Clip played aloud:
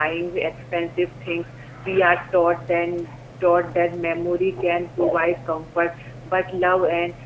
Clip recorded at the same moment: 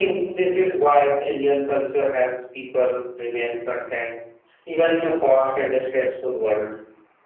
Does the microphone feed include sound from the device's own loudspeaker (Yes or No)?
No